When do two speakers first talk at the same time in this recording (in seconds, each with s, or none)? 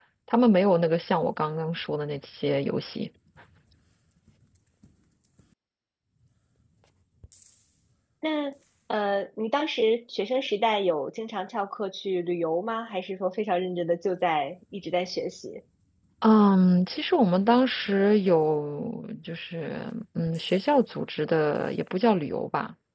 none